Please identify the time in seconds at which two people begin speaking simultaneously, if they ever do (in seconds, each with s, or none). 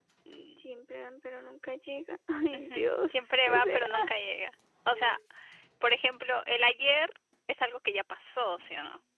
2.5 s